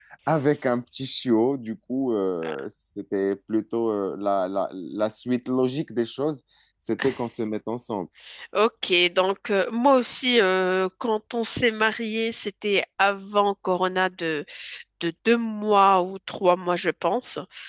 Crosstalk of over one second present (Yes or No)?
No